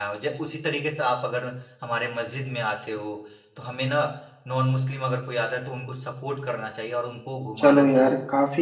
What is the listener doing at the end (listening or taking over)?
taking over